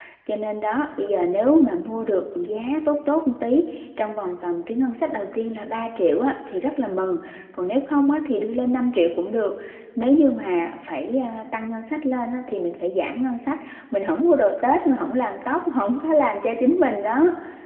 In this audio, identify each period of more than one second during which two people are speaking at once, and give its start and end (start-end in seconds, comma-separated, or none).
none